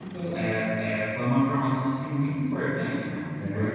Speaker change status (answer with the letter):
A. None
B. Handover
A